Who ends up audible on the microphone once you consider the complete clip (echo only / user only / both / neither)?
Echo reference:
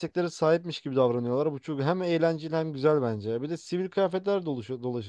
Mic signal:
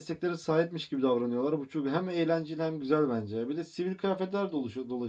echo only